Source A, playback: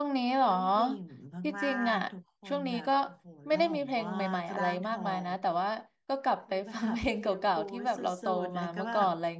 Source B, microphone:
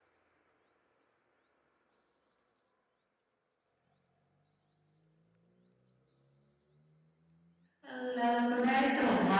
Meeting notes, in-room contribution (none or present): present